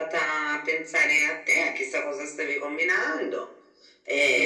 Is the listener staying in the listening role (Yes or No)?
No